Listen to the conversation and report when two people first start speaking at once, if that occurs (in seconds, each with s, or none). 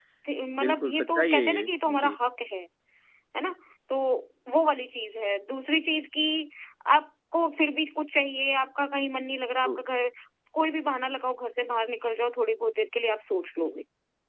0.6 s